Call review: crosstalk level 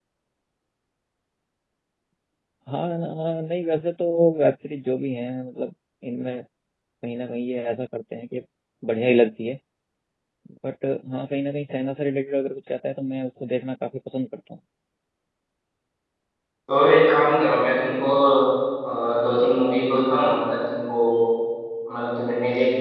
none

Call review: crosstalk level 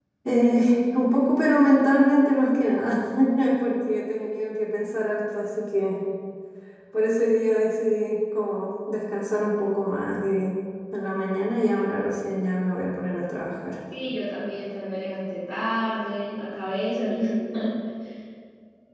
none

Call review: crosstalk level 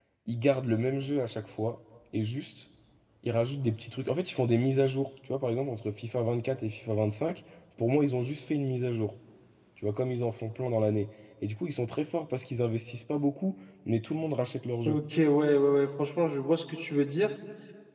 none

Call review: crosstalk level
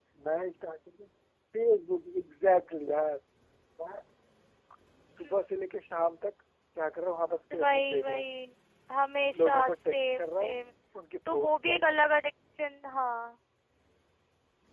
present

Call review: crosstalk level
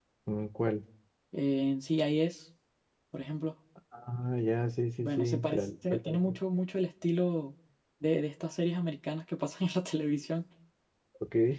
present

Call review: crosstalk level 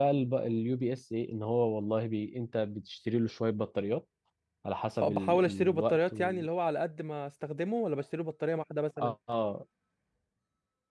present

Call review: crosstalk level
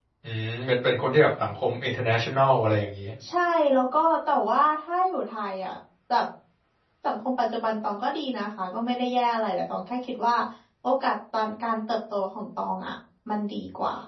none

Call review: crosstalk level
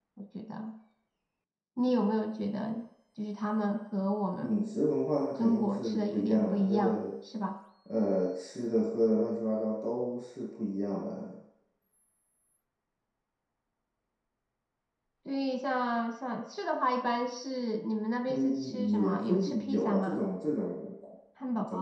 present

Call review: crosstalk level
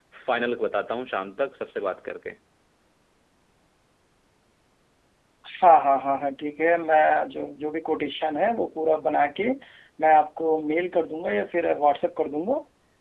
none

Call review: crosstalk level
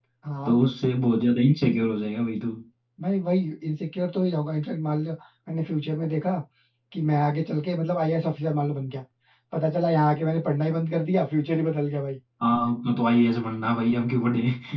none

